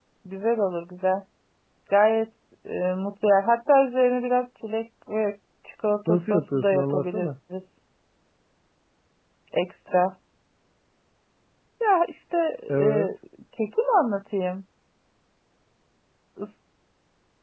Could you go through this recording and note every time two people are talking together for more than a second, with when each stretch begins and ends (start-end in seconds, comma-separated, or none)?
6.1-7.3